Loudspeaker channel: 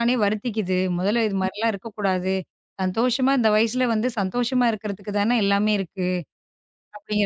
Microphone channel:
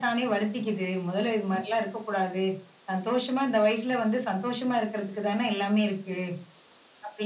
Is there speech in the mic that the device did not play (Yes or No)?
No